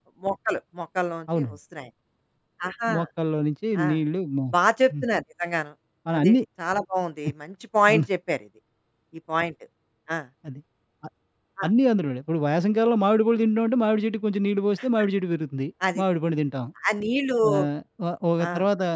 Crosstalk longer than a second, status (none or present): none